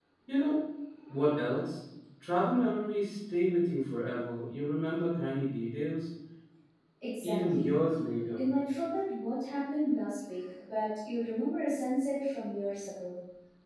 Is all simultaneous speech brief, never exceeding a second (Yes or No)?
Yes